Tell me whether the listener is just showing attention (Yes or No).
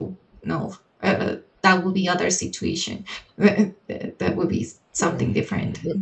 Yes